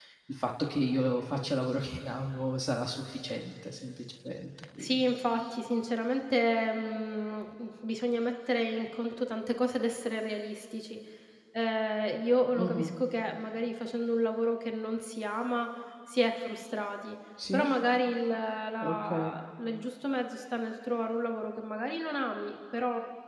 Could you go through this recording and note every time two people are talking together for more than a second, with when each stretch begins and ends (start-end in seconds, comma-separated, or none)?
none